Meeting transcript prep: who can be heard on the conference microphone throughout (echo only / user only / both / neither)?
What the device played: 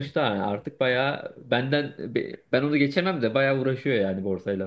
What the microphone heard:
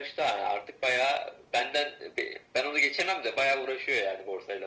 echo only